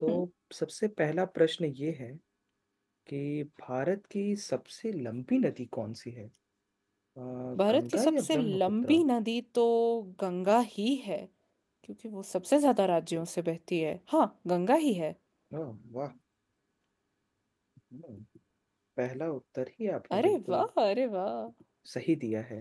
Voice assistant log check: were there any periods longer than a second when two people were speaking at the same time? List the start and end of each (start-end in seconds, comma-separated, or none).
7.7-9.0